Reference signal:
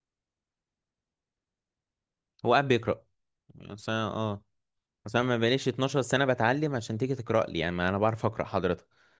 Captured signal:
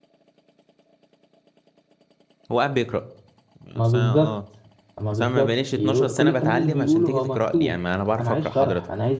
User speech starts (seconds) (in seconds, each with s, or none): 3.7 s